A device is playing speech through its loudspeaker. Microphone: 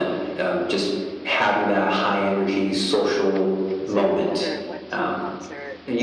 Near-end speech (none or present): present